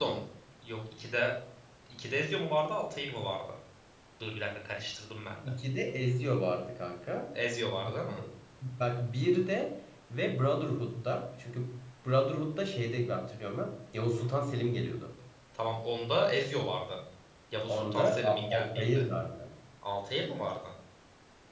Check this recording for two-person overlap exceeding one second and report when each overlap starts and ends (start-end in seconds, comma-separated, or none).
17.7-19.0